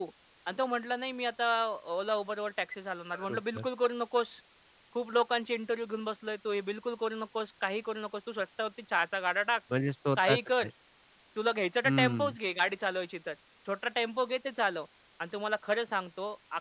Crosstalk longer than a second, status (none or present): none